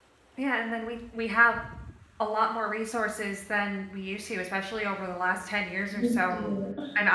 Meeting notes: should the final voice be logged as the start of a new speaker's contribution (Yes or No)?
No